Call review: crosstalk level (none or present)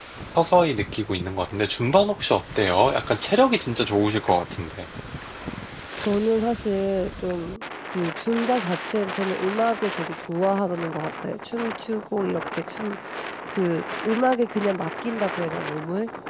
none